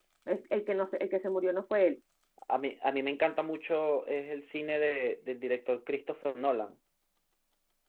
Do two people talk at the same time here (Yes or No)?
No